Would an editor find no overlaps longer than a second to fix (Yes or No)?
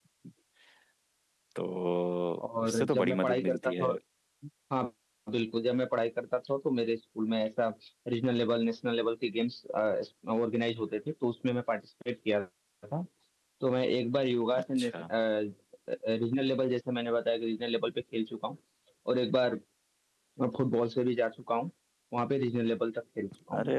No